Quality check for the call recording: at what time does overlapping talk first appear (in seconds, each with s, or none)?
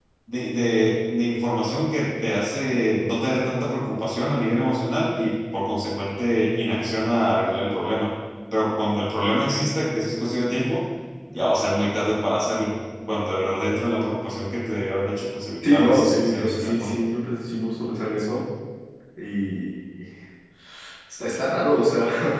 15.6 s